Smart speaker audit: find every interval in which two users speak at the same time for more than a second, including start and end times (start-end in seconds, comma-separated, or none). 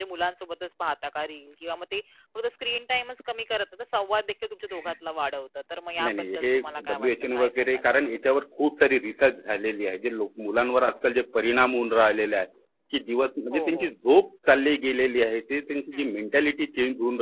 6.1-8.4